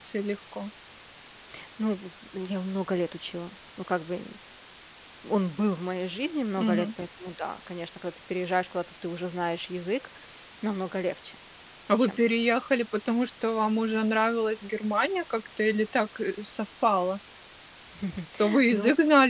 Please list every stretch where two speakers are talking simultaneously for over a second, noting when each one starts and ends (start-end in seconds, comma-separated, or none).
none